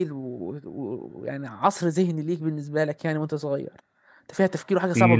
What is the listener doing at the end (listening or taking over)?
taking over